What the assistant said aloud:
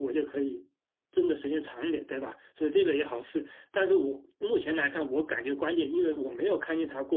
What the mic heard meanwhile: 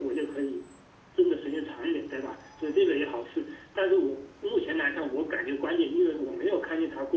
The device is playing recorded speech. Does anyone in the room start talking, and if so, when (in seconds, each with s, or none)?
none